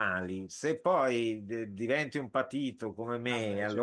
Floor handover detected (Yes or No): No